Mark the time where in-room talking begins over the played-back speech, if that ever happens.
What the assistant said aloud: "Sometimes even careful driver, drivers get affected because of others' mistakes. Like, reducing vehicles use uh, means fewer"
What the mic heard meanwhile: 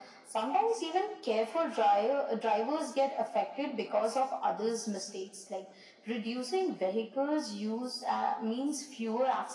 none

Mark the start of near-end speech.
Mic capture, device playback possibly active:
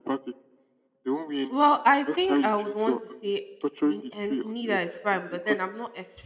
1.5 s

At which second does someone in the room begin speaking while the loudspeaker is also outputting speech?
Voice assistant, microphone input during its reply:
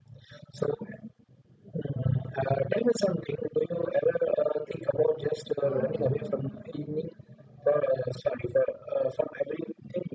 5.6 s

